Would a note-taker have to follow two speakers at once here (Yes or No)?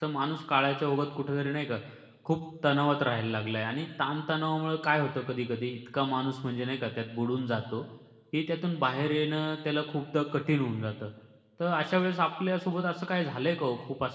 No